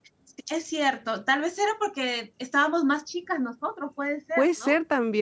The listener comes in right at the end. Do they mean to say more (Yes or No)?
Yes